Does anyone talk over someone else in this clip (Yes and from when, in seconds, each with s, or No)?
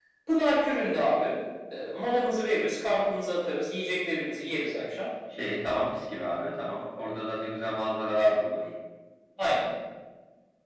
No